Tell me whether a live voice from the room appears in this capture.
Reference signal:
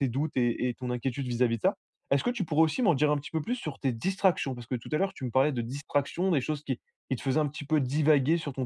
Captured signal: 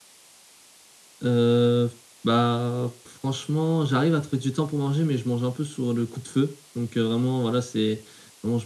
Yes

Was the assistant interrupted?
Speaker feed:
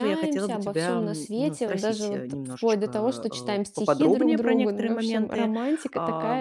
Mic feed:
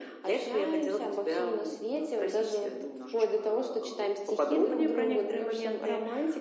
No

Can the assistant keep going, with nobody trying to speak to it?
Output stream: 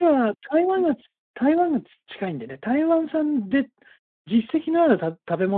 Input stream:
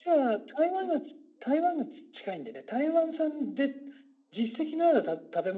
Yes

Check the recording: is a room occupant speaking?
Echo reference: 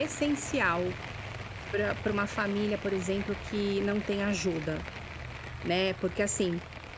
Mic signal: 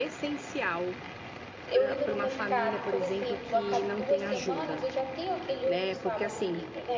Yes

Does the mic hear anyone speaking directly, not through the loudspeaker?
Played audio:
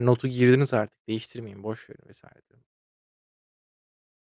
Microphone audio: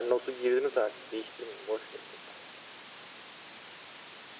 No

